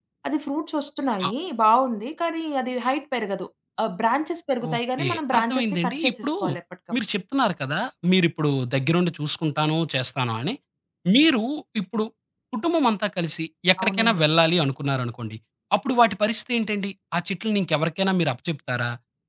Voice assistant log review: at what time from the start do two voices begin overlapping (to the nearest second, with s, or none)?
5 s